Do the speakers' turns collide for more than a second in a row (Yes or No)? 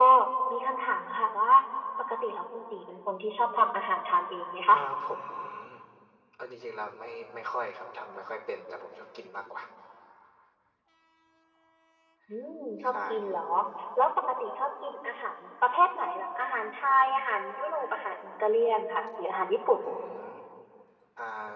No